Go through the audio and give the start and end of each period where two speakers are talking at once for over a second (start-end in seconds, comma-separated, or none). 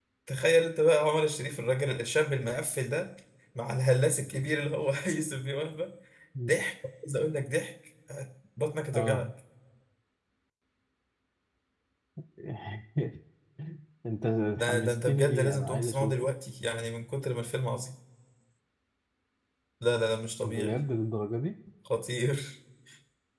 14.6-16.1